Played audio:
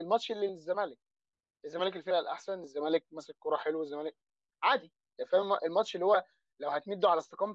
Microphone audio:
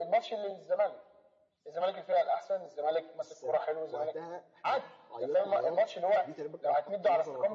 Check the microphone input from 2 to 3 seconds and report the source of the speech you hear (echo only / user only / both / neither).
echo only